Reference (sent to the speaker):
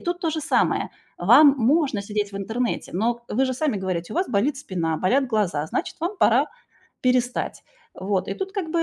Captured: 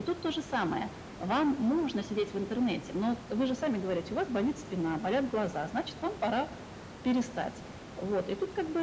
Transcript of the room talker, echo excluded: none

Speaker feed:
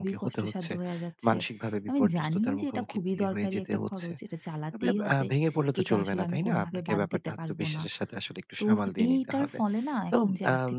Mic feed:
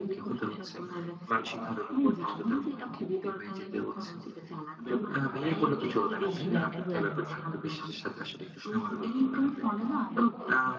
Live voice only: আয়ের থেকেও বেশি ব্যয়টা হয়ে যাচ্ছে

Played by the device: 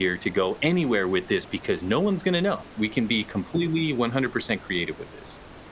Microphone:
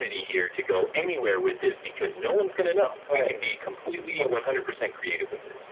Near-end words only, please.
Right. So true.

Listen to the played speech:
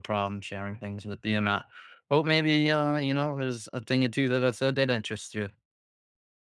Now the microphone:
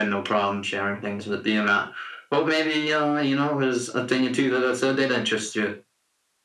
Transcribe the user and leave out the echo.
none

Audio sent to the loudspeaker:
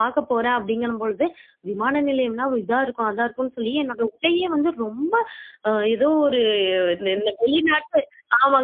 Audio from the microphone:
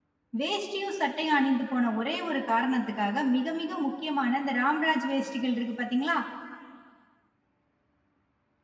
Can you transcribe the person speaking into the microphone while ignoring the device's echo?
வேஷ்டியும் சட்டையும் அணிந்து போன ஒரே ஒரு காரணத்துக்காக, மிக மிக முக்கியமான இந்த ராம்ராஜ் வேஷ்டிகள் இருக்கு பார்த்தீங்களா?

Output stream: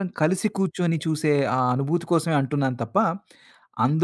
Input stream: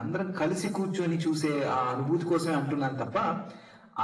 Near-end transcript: none

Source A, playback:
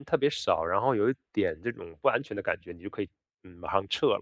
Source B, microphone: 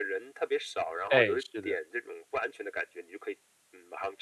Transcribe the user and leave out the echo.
哎，是的，

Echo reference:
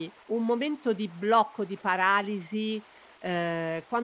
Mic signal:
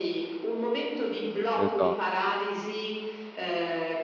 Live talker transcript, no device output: esa

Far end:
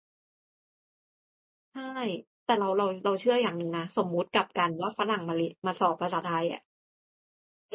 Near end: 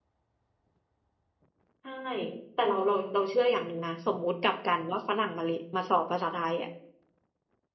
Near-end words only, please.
none

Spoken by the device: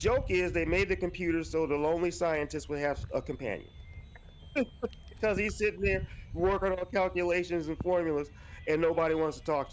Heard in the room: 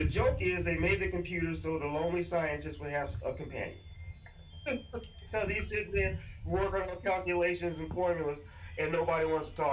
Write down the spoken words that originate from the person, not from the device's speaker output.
none

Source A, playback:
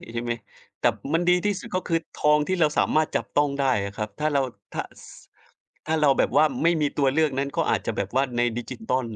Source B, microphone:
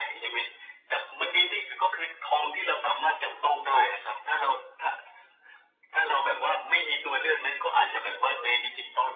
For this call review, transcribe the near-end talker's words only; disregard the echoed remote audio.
none

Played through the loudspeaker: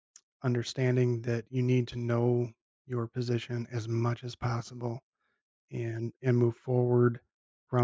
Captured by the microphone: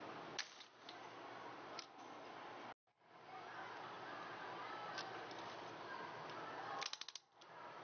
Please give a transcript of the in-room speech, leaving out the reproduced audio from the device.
none

